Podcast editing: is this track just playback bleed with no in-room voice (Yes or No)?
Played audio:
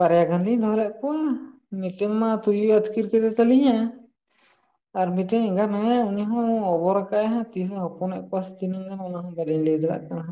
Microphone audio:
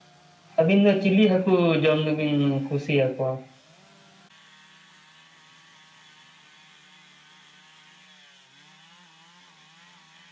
No